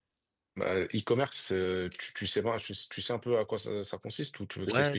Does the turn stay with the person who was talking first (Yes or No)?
No